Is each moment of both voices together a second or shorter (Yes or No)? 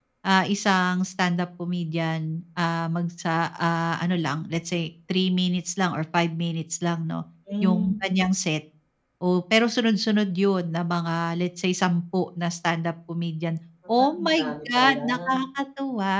No